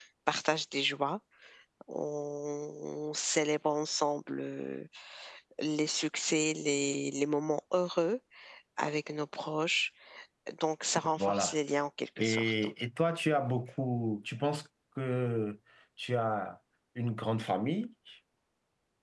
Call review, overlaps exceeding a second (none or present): none